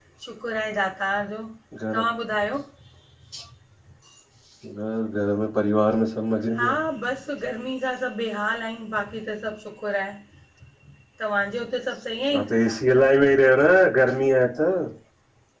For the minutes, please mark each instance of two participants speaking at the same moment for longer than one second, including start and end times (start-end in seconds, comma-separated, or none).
none